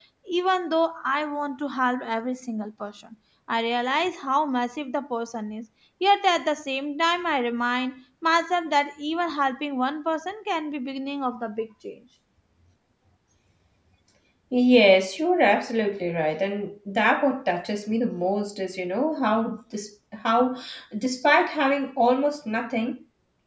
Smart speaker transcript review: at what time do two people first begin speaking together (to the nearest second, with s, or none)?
none